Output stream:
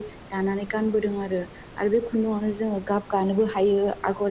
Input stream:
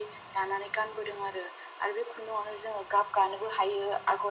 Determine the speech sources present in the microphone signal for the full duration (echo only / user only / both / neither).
echo only